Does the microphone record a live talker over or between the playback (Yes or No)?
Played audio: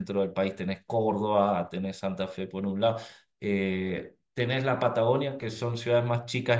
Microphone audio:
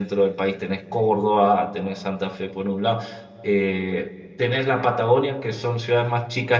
No